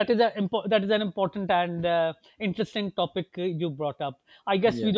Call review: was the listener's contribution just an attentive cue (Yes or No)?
Yes